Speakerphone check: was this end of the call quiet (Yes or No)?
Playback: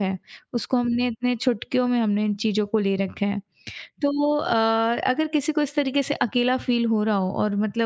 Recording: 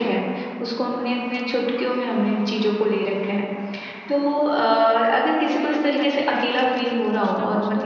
No